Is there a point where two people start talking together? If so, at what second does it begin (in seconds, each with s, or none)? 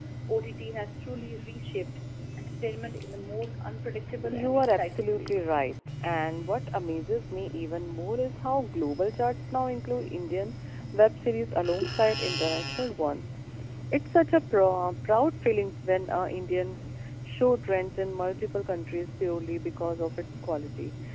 4.2 s